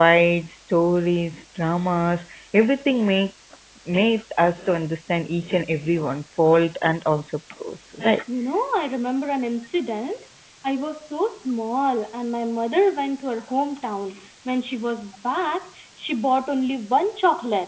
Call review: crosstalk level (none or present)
none